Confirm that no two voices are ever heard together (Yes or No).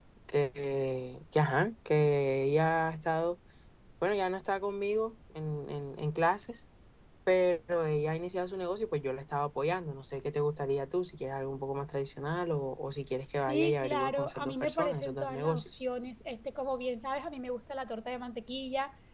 No